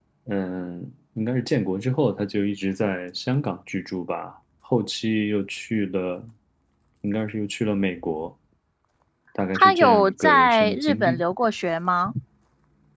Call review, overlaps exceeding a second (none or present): present